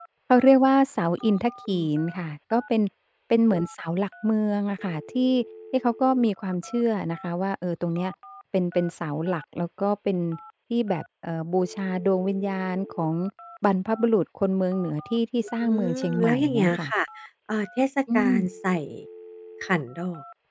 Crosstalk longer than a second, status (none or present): present